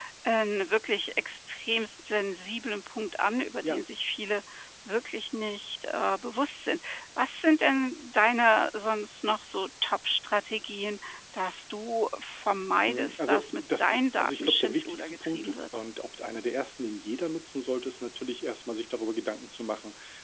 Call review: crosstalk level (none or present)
present